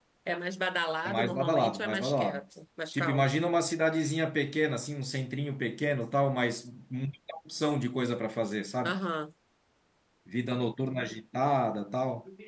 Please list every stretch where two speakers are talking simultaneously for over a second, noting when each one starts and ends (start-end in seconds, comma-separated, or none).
1.1-2.4